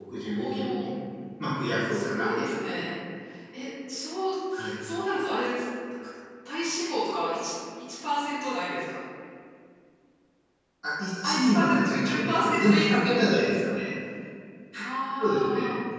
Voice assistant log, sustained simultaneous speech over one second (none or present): present